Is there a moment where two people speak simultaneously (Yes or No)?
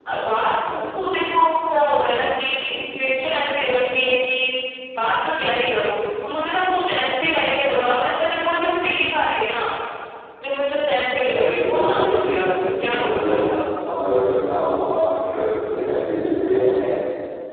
Yes